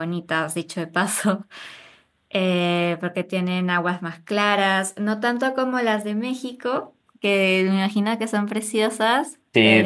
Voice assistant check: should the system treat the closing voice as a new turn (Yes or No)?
Yes